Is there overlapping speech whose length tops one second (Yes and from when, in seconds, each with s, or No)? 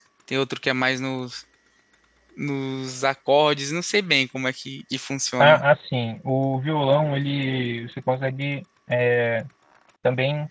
No